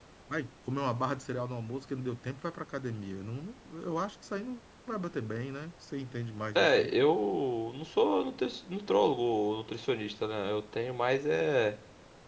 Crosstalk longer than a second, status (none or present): none